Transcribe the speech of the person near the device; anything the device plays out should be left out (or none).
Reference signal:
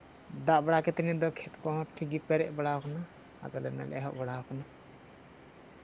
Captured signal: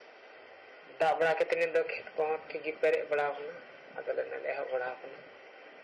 none